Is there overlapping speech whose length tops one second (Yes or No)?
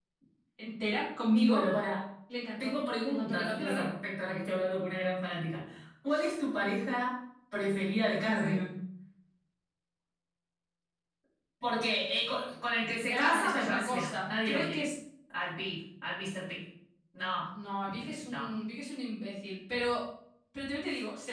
Yes